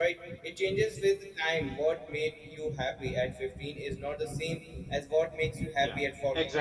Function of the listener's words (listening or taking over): taking over